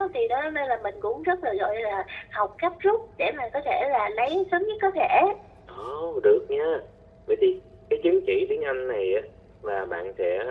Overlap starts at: none

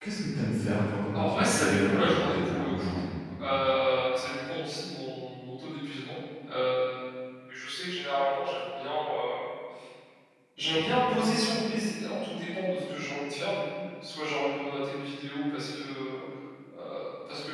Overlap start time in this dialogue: 1.1 s

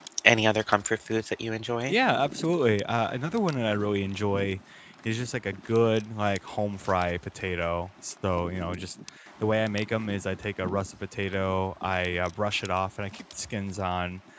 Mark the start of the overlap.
none

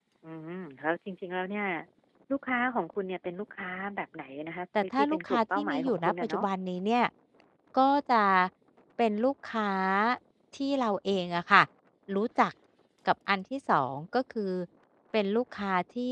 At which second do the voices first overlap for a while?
4.8 s

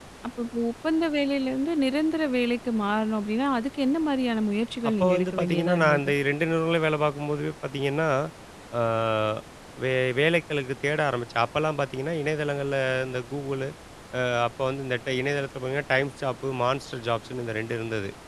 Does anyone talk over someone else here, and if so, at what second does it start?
4.8 s

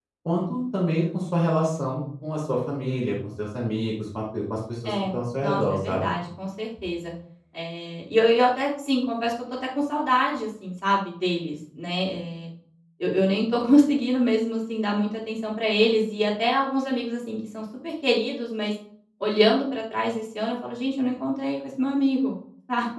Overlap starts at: 4.8 s

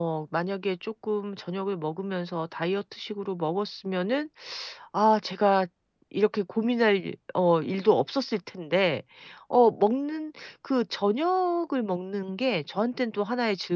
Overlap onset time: none

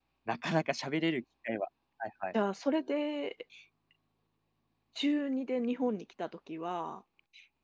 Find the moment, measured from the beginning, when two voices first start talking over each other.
none

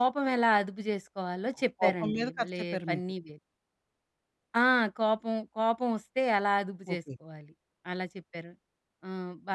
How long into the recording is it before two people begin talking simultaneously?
1.8 s

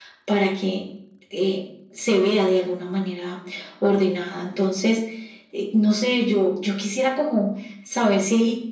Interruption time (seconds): none

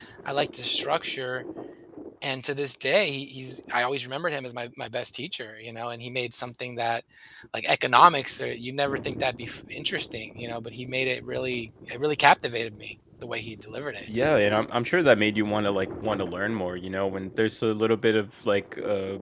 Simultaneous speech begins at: none

